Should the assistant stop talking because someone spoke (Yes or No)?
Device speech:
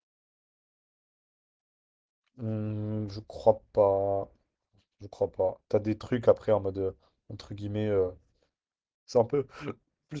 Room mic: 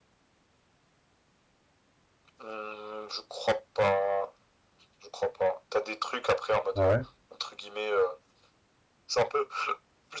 Yes